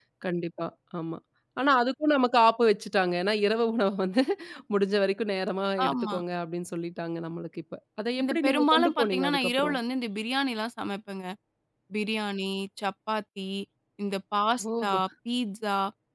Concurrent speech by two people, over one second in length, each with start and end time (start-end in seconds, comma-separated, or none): 8.2-9.8